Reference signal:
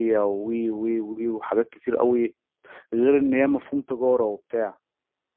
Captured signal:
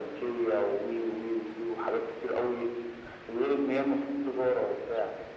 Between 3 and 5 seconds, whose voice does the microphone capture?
echo only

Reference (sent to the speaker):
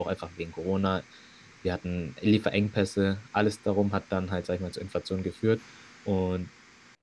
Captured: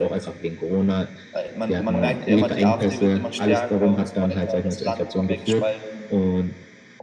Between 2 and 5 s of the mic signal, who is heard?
both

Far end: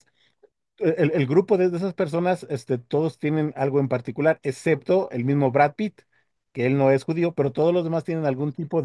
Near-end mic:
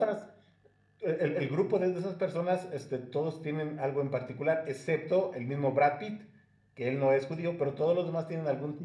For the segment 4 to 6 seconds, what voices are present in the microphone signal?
echo only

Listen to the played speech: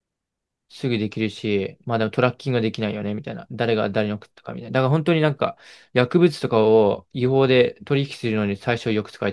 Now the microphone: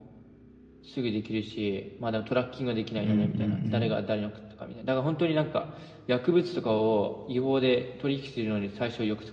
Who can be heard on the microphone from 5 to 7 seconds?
echo only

